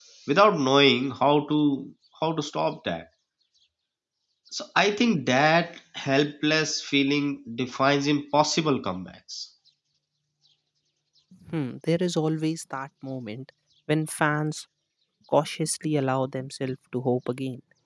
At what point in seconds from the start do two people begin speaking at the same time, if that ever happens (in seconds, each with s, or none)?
none